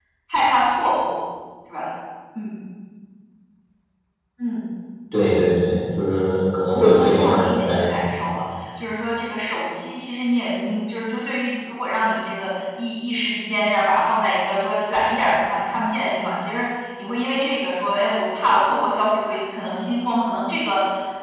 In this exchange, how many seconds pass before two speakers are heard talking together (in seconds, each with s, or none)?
6.7 s